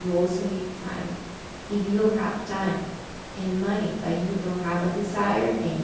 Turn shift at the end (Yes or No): No